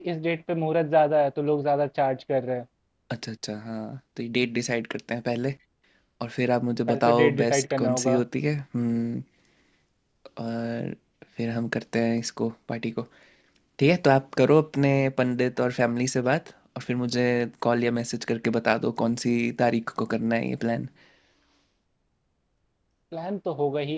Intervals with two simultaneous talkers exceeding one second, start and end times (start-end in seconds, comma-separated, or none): 6.9-8.2